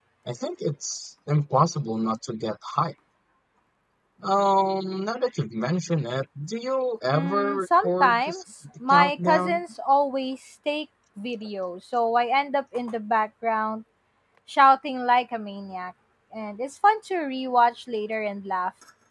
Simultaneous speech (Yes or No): Yes